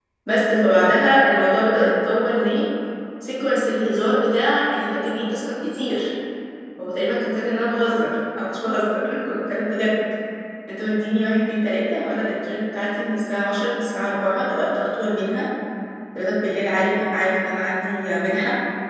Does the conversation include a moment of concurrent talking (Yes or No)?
No